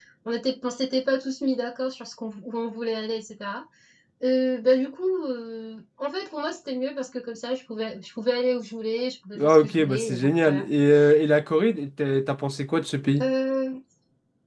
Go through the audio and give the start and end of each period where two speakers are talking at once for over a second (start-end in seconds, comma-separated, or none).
9.4-10.6